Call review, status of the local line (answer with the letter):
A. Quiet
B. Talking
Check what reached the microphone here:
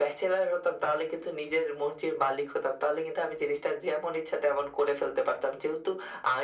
A